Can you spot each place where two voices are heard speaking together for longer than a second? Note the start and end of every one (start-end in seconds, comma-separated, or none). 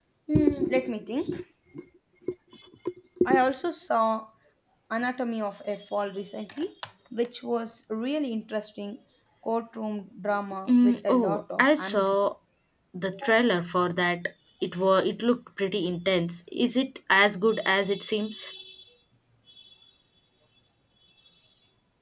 10.7-12.2